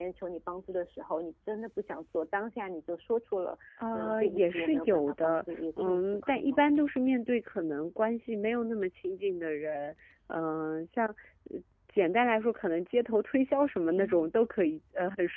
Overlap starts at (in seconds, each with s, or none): 3.9 s